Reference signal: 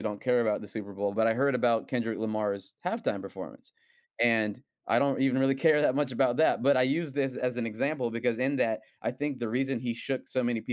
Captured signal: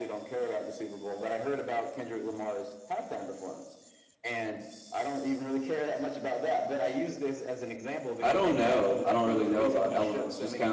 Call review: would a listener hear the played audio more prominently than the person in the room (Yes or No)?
No